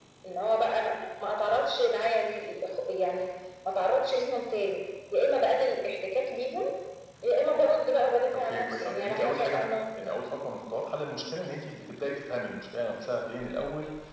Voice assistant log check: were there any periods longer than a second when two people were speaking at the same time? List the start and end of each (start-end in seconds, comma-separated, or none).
8.3-9.9